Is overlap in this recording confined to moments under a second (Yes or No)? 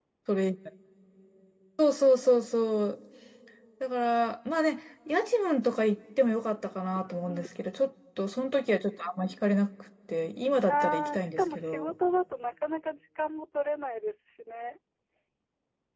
No